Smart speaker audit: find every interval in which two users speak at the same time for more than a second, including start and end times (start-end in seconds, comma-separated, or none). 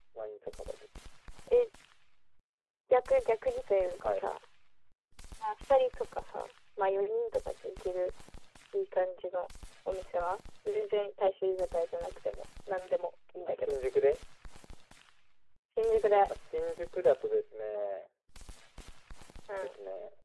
none